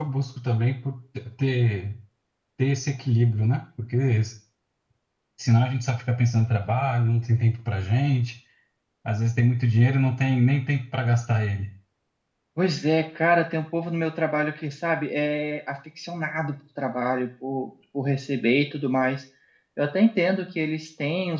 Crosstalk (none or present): none